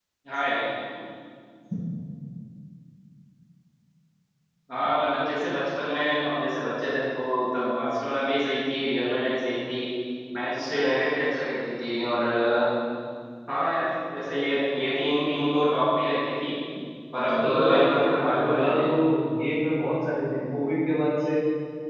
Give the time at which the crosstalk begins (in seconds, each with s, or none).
17.3 s